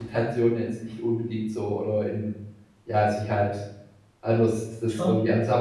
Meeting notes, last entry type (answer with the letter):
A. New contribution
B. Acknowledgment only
B